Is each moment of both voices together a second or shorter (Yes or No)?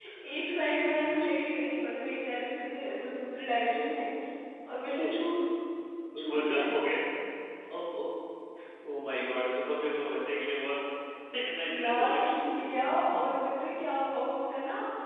Yes